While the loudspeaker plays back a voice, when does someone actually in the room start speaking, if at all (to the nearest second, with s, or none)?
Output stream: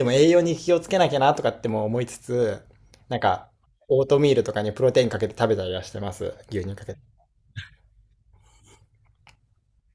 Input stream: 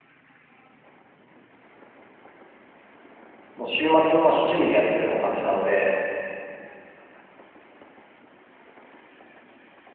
4 s